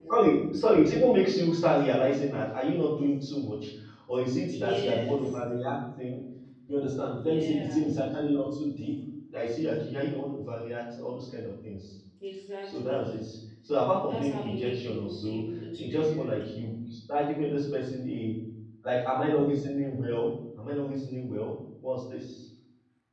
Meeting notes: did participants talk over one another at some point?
Yes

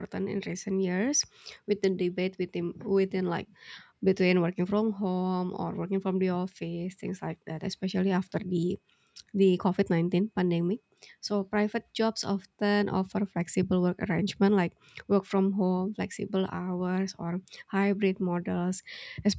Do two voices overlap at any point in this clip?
No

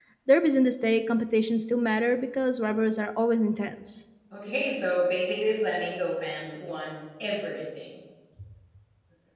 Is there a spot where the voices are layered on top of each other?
No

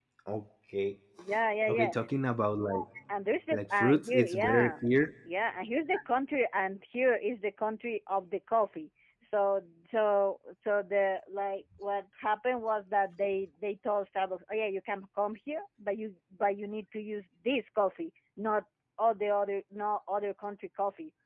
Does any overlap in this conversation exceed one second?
Yes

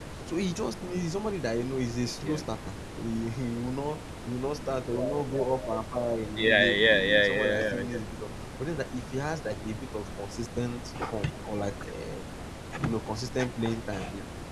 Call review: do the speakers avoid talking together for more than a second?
No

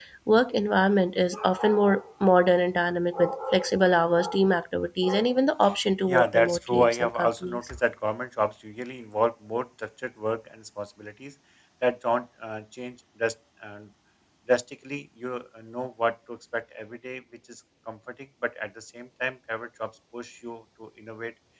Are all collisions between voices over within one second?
No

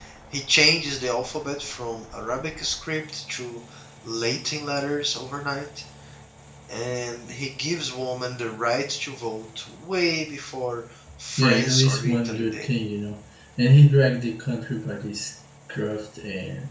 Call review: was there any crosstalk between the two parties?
Yes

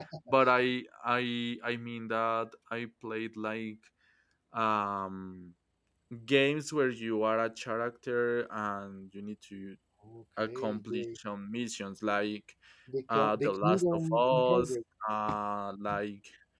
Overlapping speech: Yes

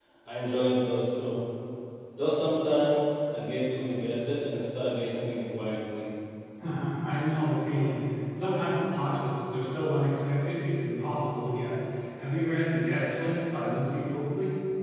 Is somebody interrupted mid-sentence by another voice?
No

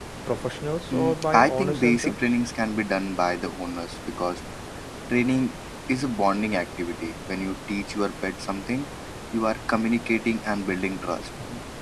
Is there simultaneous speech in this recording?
Yes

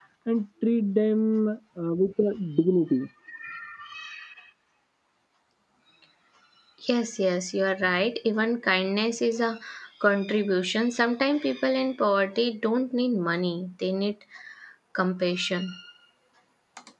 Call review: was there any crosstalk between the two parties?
No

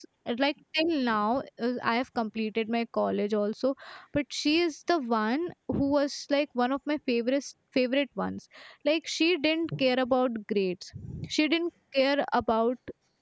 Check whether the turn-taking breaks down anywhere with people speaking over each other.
No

